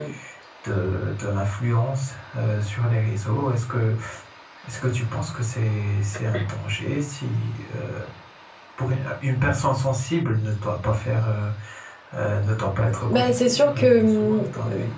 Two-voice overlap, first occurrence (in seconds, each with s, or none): 13.1 s